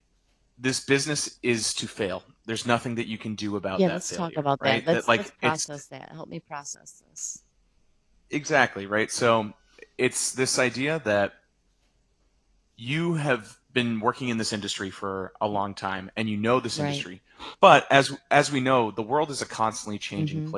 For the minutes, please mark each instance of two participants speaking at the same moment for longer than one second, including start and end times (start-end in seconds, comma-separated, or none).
3.8-5.5